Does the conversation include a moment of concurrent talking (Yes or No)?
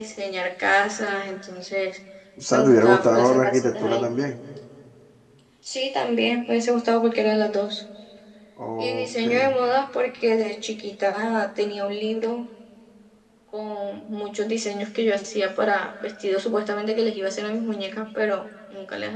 Yes